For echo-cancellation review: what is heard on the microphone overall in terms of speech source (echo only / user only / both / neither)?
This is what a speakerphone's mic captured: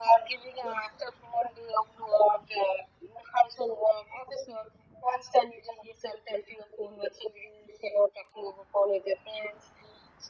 echo only